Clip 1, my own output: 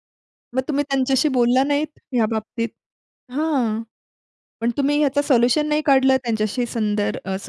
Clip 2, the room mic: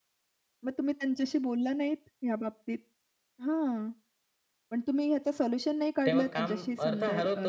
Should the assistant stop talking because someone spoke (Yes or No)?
Yes